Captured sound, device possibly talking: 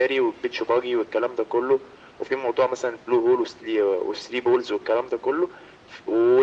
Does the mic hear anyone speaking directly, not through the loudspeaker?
No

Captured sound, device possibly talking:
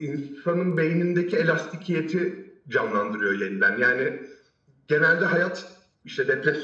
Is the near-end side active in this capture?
No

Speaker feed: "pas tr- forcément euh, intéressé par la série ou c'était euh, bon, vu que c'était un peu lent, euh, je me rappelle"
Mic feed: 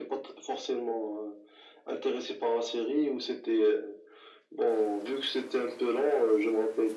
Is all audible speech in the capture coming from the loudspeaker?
Yes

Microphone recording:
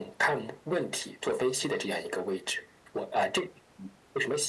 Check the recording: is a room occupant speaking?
No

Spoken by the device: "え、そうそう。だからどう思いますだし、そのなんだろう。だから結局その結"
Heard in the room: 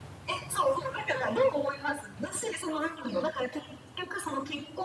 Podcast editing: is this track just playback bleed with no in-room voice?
Yes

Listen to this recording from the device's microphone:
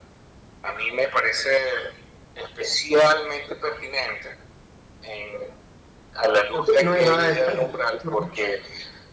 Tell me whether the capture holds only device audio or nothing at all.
No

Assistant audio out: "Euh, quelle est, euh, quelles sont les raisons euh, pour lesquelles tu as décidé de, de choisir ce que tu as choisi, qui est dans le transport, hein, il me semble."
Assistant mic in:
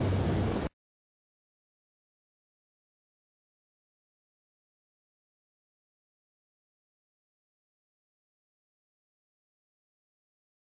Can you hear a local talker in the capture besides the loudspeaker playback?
No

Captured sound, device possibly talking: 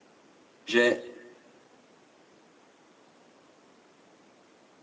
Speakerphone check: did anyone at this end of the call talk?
Yes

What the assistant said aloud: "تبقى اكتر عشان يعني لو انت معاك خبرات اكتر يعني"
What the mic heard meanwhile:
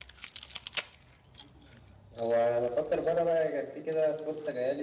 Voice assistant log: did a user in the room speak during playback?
Yes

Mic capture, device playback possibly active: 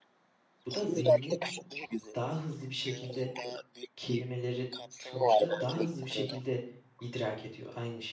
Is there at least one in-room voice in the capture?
Yes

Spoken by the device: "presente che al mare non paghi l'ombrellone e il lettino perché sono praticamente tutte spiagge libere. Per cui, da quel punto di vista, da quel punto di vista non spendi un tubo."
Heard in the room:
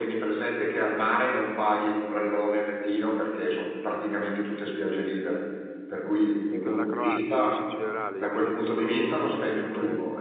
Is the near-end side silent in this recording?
No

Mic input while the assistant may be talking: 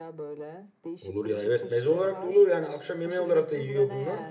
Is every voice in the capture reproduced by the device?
No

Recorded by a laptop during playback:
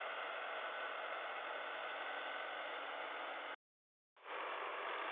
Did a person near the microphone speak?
No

